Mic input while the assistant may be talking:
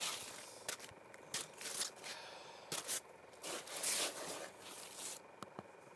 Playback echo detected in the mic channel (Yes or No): No